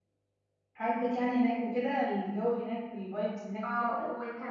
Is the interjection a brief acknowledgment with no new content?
No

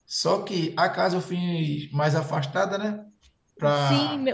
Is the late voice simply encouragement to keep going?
No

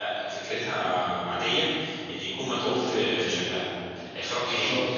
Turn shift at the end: No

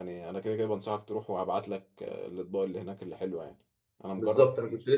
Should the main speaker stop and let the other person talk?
Yes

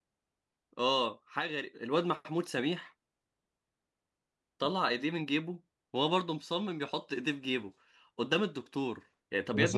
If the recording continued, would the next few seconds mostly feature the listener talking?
Yes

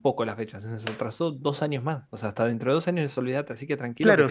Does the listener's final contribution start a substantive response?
Yes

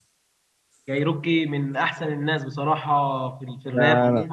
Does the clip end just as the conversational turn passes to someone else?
Yes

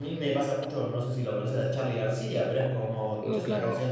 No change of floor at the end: Yes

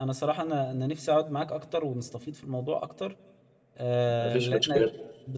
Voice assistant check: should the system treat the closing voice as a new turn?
No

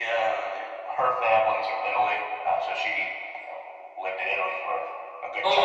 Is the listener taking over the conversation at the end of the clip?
Yes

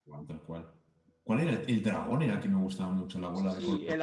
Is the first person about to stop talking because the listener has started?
Yes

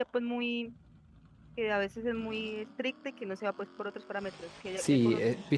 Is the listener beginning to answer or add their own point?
Yes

